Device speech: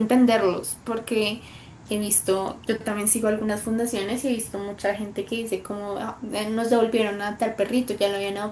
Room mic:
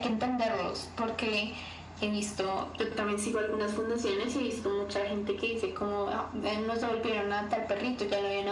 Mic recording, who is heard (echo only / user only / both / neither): echo only